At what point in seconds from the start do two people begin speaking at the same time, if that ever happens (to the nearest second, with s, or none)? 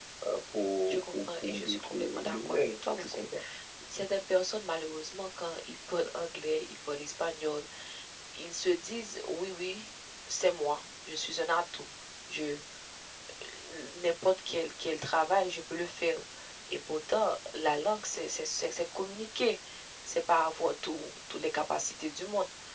1 s